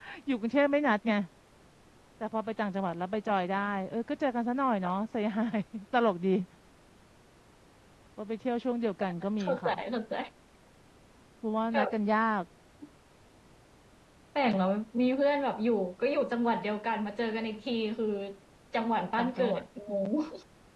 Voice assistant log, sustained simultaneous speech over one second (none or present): none